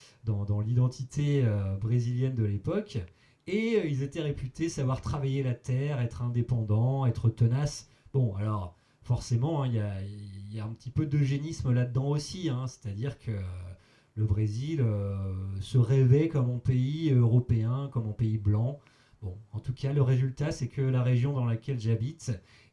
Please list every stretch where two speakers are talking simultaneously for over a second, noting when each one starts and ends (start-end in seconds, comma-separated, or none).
none